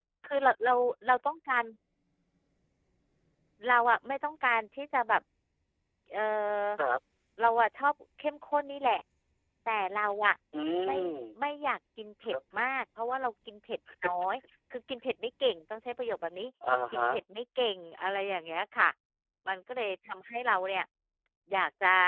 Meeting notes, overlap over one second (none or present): none